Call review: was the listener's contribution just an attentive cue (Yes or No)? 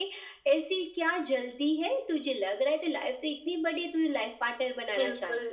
No